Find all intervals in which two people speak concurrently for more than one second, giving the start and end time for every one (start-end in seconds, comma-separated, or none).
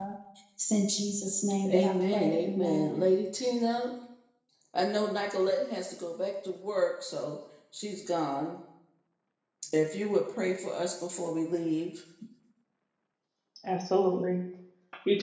1.7-3.0